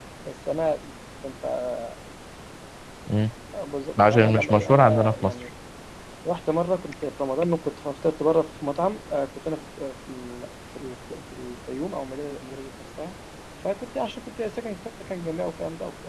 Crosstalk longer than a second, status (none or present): present